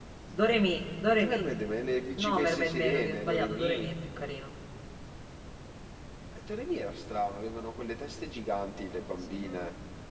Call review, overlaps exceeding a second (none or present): present